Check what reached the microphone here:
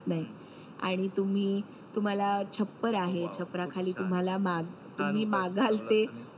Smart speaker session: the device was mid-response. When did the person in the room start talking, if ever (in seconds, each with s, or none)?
none